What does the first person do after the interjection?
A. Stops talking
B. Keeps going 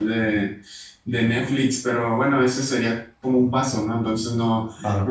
B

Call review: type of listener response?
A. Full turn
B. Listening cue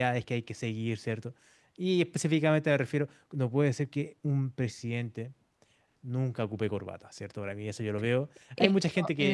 B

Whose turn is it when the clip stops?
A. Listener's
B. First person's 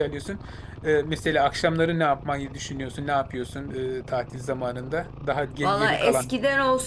A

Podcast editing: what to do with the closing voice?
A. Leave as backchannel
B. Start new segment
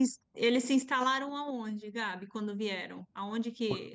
A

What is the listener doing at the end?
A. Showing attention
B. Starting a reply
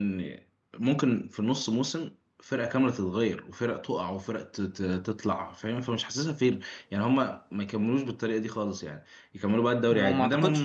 B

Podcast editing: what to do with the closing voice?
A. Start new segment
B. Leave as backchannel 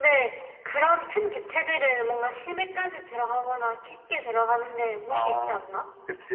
A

